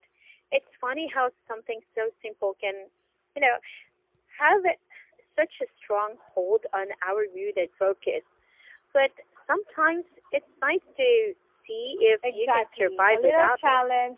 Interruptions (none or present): present